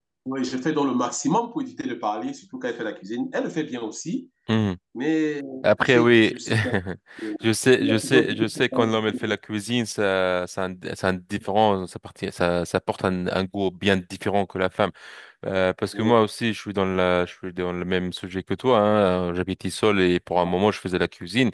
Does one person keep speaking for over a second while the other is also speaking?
Yes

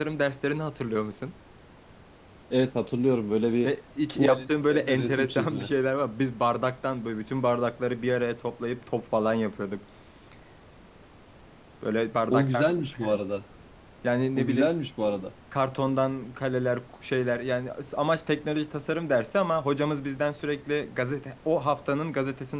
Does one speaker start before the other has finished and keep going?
Yes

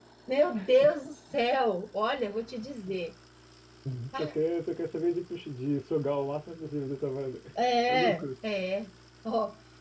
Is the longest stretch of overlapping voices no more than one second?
Yes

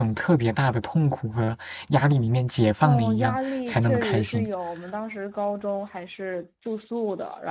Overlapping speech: Yes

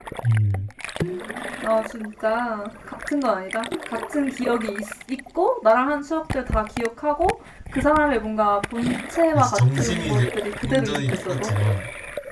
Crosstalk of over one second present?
Yes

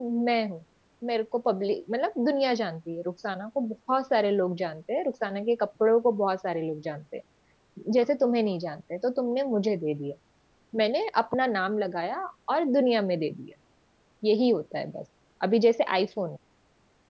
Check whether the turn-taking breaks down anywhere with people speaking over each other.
No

